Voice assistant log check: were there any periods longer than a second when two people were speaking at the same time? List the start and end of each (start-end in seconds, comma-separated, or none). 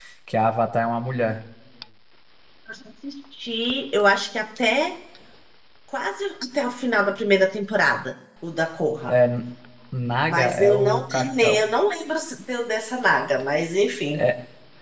10.3-11.6